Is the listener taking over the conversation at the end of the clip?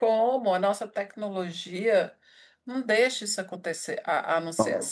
No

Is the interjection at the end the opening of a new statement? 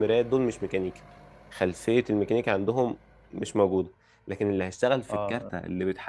No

